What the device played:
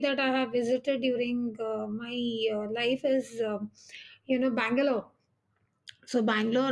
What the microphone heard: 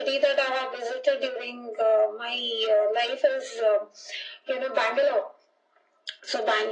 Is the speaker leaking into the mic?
Yes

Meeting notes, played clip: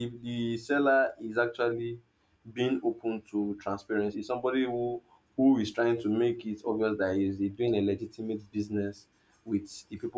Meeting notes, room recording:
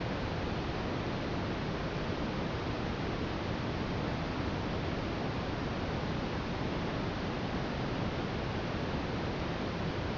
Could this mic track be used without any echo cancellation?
Yes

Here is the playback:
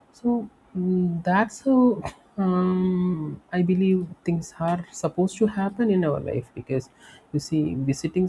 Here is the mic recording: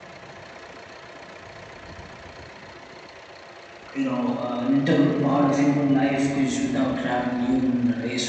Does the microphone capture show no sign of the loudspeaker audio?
Yes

